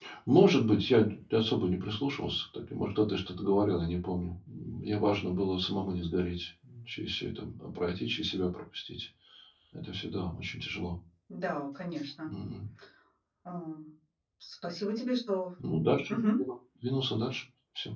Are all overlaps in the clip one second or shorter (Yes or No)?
Yes